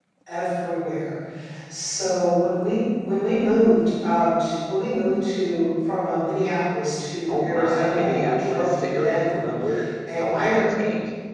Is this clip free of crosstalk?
No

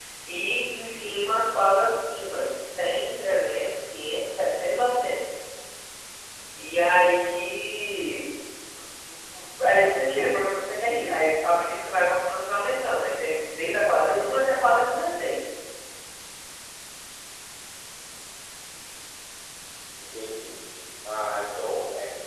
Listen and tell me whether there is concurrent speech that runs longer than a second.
No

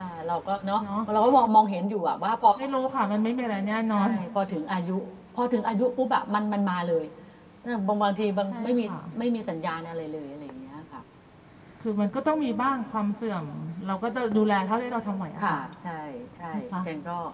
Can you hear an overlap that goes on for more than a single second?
No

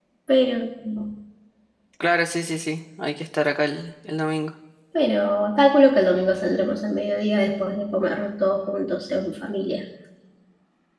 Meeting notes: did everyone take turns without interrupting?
Yes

